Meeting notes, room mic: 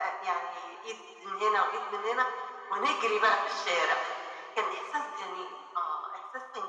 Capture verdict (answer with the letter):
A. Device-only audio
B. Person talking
A